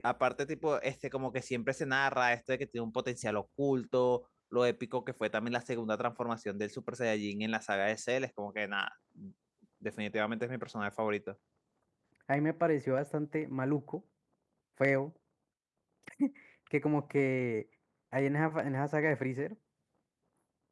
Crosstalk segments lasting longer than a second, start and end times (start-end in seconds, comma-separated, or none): none